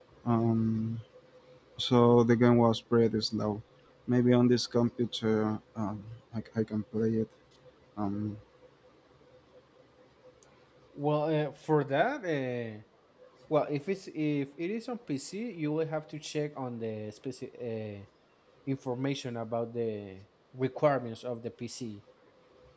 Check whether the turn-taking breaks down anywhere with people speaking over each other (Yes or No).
No